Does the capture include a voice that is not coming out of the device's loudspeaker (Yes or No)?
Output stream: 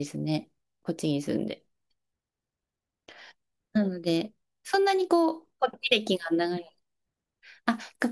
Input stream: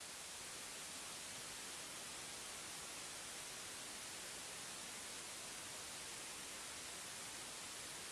No